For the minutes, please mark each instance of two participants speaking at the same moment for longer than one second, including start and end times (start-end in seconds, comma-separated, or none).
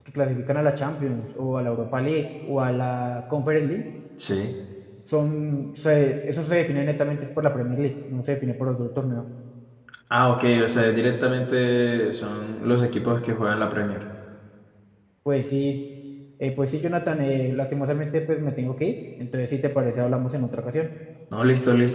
none